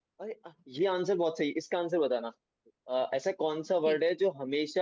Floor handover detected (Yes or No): No